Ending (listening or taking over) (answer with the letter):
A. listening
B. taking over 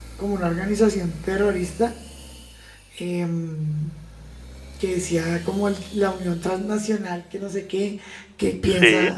A